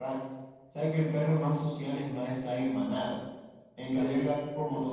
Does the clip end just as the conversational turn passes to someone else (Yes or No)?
No